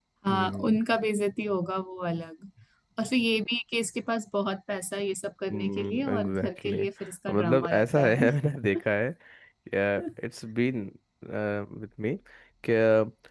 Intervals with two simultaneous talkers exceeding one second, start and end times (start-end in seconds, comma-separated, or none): 5.5-8.3